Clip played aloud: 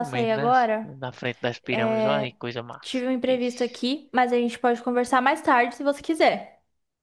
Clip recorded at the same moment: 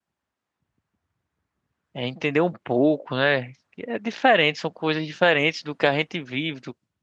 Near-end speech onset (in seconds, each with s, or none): 1.9 s